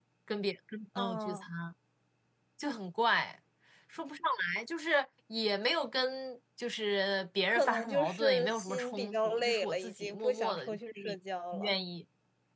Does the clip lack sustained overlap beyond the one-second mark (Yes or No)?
No